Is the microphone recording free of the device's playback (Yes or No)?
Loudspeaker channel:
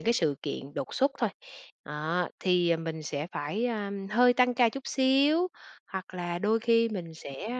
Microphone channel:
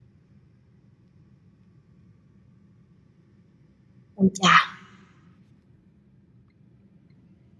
Yes